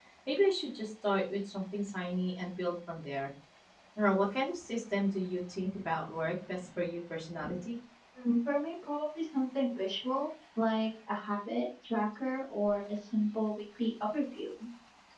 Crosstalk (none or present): none